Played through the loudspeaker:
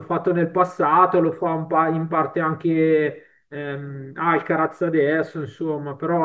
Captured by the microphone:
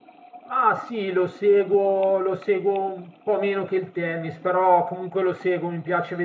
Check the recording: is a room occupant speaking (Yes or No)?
Yes